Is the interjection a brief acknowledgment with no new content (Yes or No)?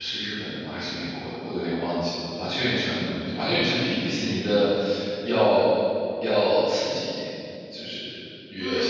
No